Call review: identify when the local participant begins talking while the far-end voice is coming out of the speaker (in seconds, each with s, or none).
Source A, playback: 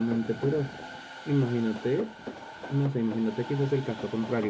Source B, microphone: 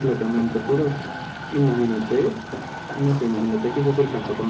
none